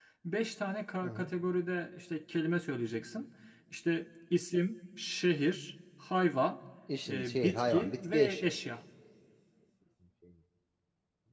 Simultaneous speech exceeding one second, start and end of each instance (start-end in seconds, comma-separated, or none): 7.1-8.5